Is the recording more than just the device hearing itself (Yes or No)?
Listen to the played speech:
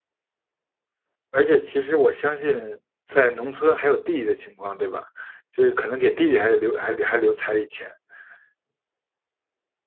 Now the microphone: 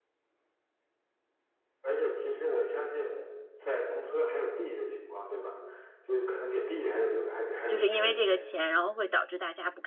Yes